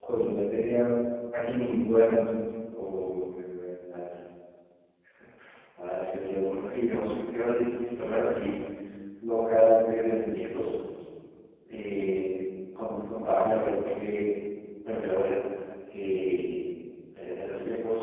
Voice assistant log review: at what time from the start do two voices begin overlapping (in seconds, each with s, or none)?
none